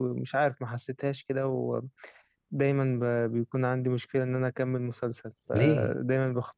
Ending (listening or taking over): listening